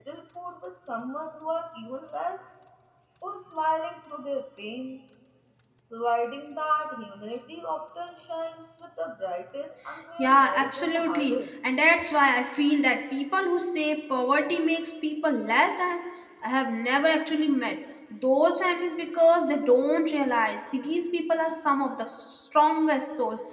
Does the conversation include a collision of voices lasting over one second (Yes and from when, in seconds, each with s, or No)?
Yes, from 10.2 s